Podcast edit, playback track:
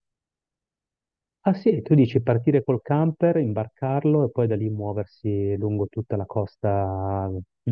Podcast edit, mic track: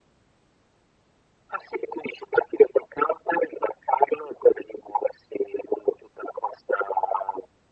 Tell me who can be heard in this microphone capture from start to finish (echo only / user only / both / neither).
echo only